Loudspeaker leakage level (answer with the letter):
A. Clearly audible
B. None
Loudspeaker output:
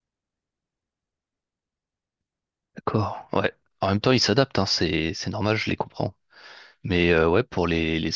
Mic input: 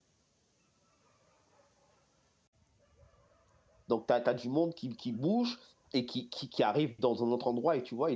B